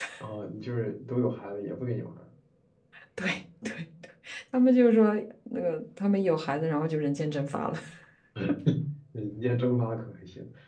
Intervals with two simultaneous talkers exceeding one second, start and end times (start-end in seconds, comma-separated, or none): none